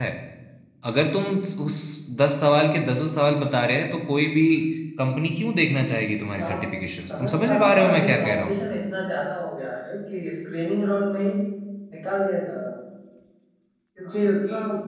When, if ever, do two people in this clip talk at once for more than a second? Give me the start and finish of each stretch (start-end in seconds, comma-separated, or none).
7.1-8.6